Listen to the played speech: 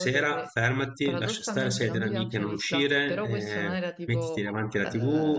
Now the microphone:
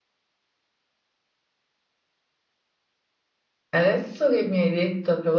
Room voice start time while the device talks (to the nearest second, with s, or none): 4 s